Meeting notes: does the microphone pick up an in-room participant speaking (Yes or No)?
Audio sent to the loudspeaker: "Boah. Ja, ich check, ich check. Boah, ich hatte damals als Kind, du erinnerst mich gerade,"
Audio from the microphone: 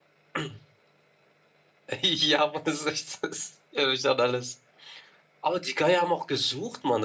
Yes